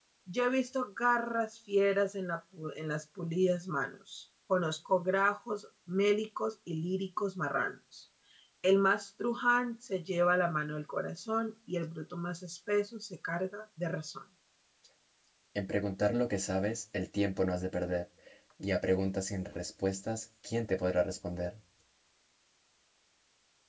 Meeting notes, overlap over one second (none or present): none